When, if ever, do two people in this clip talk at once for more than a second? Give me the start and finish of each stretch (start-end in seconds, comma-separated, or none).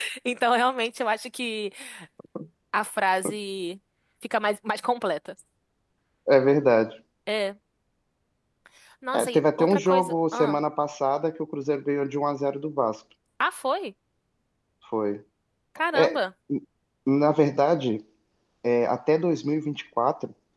9.1-10.6